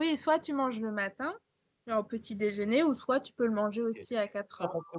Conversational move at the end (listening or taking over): taking over